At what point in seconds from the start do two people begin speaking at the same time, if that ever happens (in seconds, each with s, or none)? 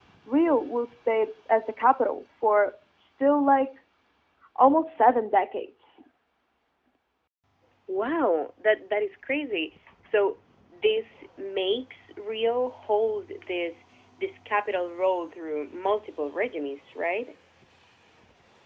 none